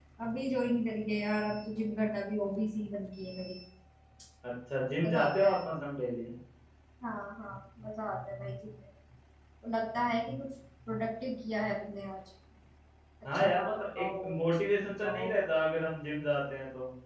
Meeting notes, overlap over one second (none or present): present